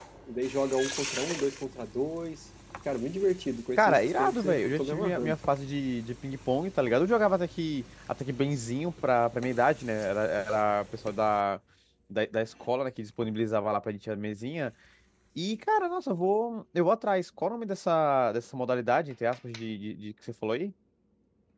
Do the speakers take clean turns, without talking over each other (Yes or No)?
No